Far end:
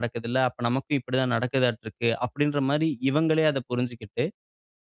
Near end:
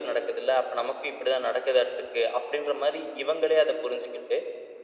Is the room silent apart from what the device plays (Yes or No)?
Yes